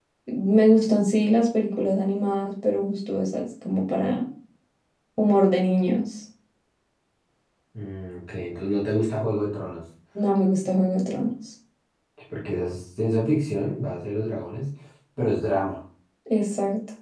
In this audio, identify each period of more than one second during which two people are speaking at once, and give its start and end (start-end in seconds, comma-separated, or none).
none